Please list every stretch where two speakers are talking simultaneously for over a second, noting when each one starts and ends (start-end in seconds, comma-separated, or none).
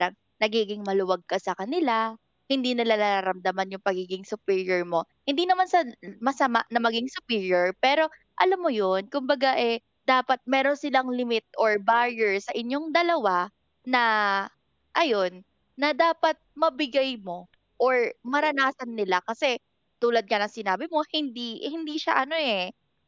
none